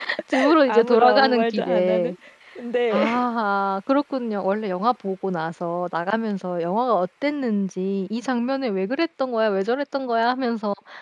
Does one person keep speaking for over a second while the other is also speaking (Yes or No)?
Yes